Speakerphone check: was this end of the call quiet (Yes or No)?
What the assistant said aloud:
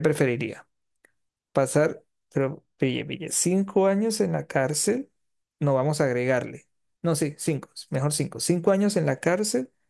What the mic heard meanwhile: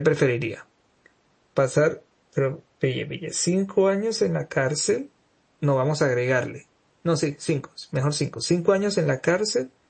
Yes